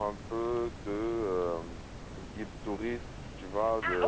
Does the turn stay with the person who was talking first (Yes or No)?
No